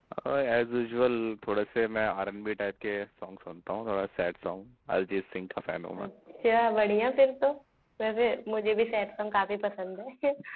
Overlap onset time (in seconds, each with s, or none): none